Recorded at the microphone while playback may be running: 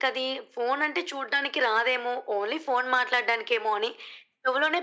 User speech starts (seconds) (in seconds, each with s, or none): none